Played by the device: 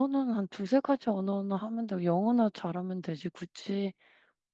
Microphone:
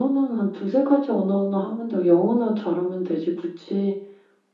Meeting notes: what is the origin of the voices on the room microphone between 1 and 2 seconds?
echo only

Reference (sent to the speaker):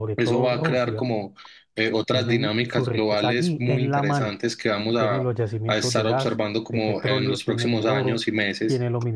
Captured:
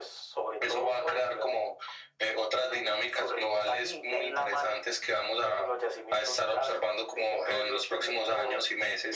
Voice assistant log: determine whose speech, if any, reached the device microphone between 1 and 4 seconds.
echo only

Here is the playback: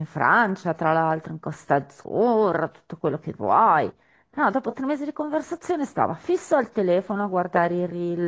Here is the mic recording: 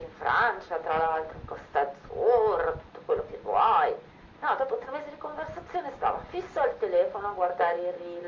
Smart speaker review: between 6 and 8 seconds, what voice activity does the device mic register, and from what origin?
echo only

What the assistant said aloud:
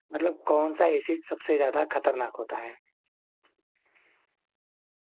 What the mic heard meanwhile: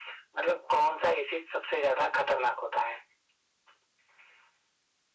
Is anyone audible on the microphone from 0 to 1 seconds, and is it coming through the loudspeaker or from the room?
echo only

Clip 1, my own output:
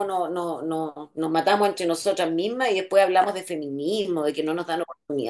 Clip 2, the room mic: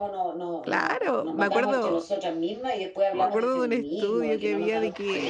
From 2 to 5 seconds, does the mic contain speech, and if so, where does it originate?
both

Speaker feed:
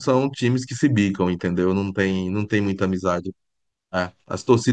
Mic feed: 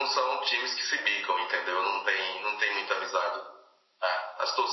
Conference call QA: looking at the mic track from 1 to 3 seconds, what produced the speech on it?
echo only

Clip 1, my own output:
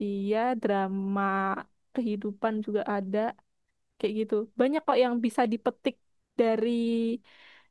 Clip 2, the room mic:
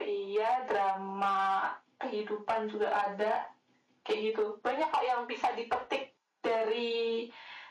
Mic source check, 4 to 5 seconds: echo only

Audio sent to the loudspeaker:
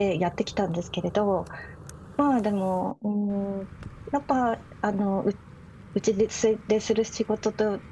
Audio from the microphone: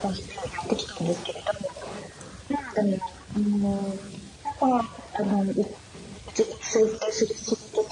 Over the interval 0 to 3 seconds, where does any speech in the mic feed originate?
echo only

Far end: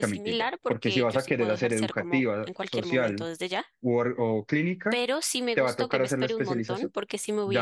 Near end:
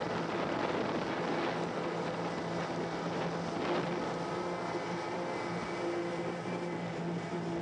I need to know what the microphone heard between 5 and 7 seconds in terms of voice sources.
neither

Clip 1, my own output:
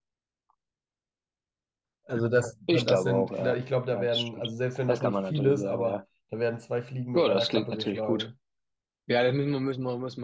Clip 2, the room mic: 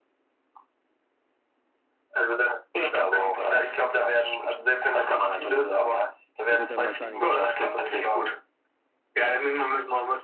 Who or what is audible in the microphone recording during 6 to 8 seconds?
both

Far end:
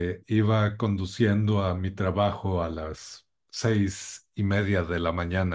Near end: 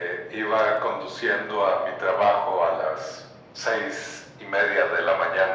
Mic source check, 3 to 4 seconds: echo only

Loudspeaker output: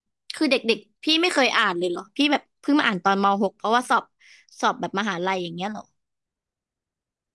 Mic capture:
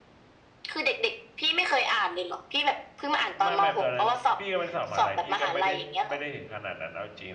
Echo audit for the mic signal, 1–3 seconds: echo only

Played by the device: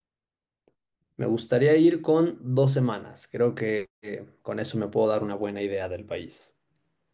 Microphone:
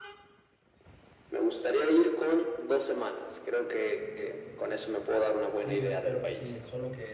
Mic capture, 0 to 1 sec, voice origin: neither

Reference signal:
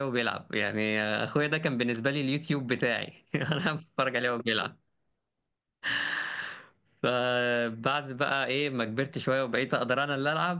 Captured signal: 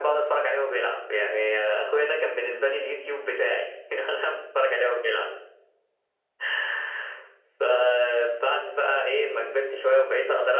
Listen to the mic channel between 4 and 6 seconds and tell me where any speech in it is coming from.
echo only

